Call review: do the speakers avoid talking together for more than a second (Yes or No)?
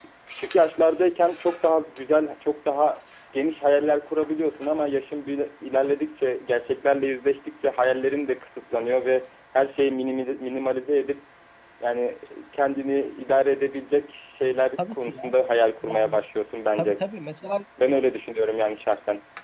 Yes